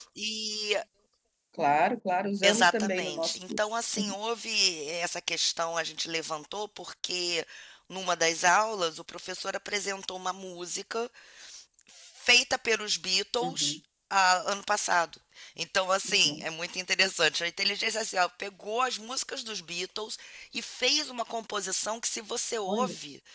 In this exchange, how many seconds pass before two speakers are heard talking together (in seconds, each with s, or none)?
2.4 s